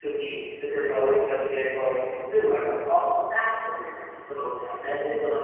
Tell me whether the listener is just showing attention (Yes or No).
Yes